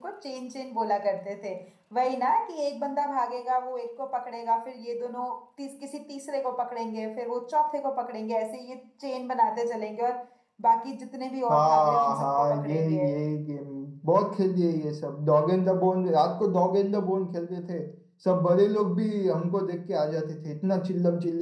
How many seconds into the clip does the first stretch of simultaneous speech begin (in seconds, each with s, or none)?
11.5 s